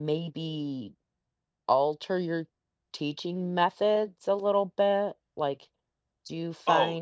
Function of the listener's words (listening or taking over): taking over